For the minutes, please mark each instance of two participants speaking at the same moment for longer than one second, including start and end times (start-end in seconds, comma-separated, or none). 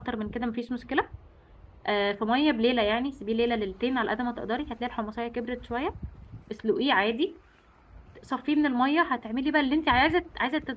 none